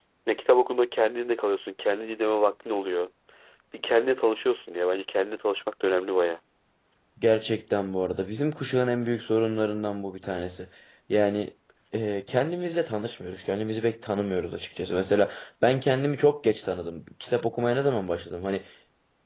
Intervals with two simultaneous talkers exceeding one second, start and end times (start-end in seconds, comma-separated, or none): none